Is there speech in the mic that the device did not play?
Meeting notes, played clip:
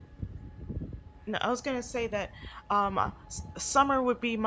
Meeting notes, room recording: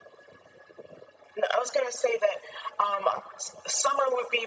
No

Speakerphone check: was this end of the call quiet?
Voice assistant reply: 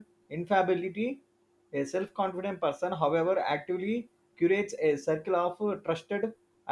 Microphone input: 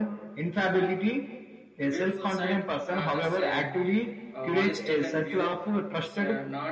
No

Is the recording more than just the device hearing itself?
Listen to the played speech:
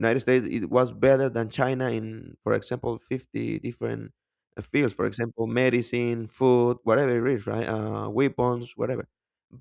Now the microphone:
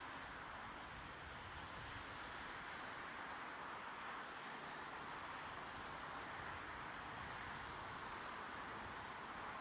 No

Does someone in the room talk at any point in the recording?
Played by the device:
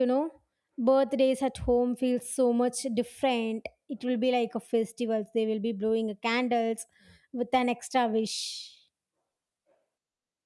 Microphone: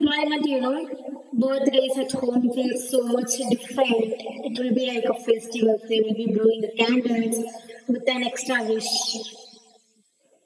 No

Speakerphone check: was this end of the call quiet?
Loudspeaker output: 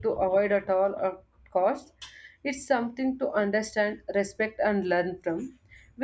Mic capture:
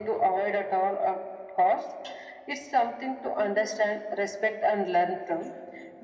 Yes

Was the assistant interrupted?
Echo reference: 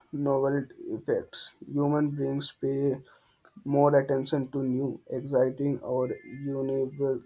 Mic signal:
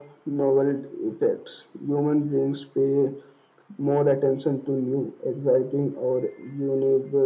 No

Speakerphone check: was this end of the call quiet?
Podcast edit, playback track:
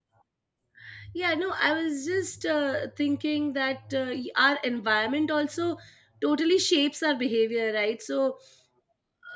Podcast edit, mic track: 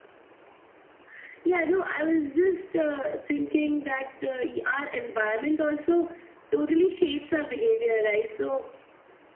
No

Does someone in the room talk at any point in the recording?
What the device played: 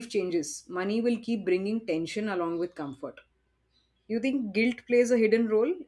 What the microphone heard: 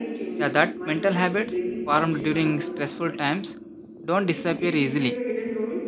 Yes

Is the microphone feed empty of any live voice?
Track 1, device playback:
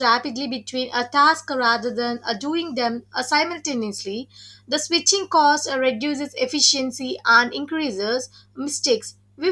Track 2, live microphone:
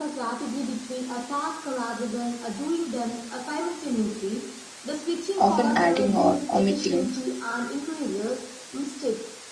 No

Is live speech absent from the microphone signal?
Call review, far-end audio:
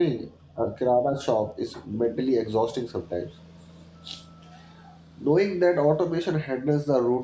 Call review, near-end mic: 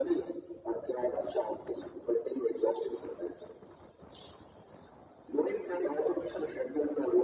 Yes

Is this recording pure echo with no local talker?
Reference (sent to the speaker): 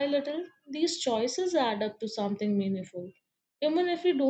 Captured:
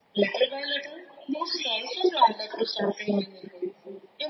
Yes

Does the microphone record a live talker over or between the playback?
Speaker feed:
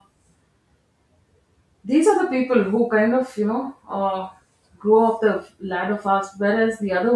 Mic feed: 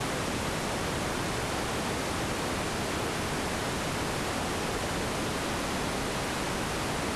No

